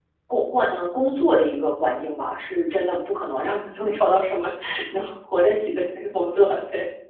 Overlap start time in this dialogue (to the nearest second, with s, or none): none